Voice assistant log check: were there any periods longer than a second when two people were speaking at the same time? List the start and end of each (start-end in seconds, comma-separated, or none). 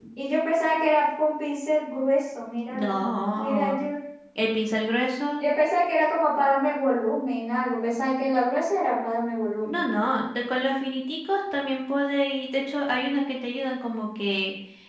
none